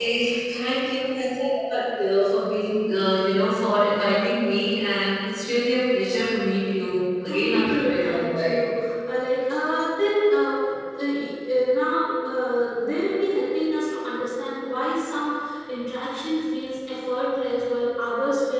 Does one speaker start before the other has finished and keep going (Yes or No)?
Yes